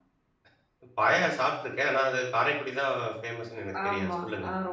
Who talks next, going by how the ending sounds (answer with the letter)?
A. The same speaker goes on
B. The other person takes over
B